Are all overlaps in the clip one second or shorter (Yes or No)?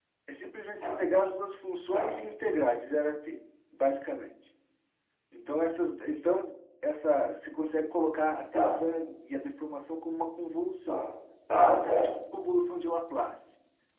Yes